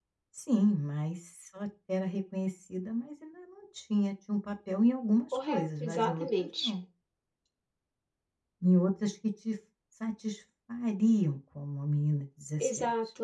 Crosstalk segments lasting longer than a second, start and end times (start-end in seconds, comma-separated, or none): 5.5-6.7